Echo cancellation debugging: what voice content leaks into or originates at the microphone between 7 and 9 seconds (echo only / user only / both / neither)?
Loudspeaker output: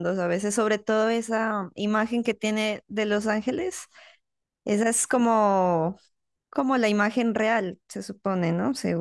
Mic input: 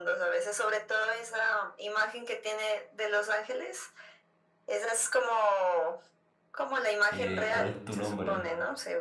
both